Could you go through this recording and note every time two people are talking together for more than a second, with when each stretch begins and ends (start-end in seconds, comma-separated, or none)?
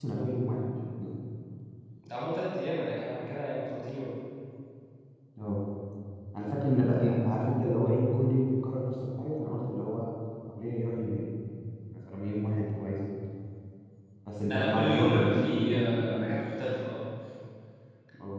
14.5-16.4